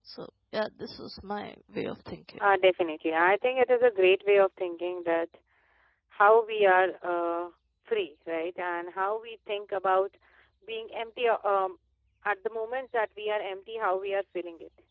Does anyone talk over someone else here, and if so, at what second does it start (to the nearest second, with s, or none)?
none